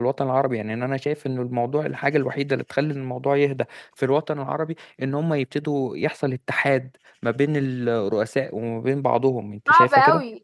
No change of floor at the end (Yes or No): No